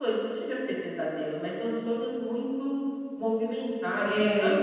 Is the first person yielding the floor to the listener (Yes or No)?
Yes